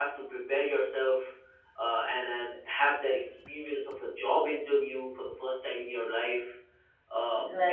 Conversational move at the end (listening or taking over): listening